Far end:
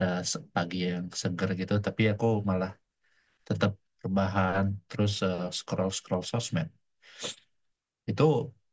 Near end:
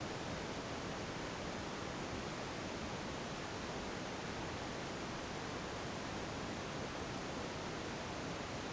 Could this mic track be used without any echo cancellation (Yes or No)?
Yes